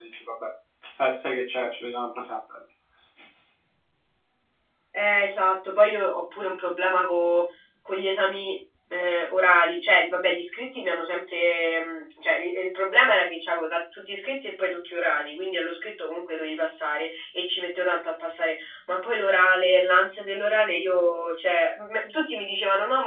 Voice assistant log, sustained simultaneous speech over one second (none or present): none